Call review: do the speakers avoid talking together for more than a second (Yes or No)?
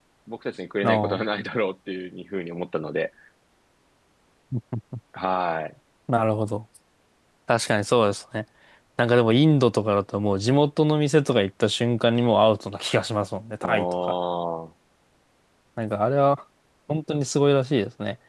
Yes